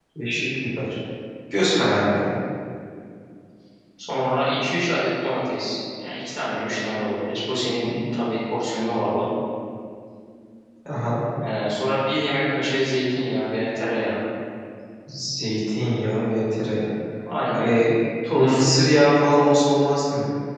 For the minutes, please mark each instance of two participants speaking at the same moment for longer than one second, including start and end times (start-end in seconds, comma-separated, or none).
none